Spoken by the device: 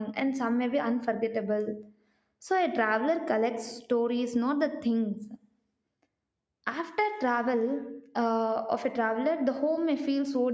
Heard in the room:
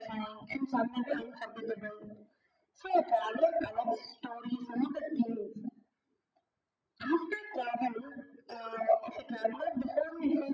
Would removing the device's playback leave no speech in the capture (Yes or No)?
Yes